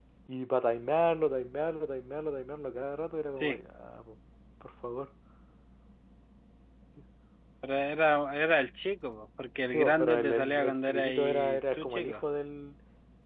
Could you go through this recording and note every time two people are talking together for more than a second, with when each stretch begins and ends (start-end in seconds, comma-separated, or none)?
9.7-12.2